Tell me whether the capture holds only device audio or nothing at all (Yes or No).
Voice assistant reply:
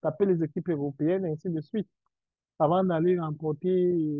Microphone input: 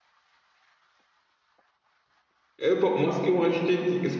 No